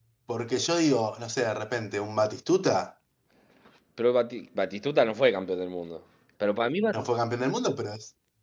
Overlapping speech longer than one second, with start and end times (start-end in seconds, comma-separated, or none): none